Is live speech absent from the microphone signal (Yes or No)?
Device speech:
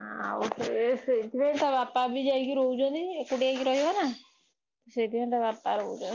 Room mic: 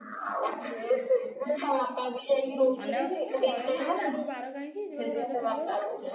No